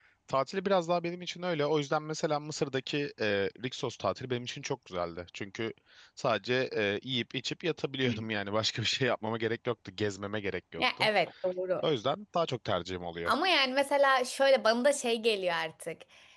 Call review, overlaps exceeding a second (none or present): none